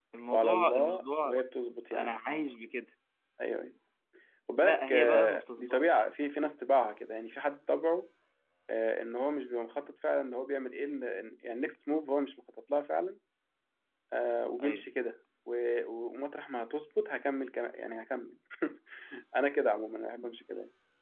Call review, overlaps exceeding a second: present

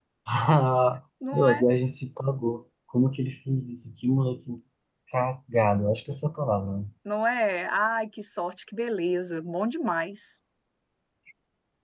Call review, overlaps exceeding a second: none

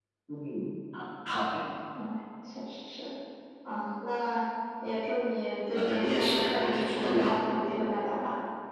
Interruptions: present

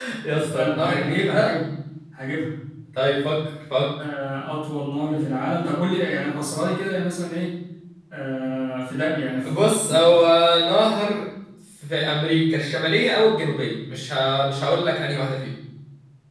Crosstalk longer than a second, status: present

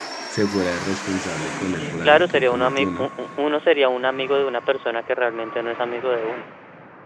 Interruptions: present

